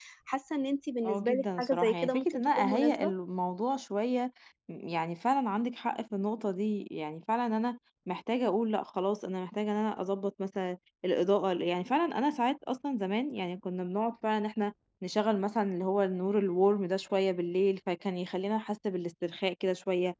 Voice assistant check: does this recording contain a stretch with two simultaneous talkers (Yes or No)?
Yes